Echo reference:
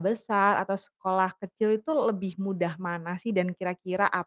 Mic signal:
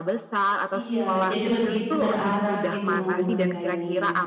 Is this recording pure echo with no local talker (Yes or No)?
No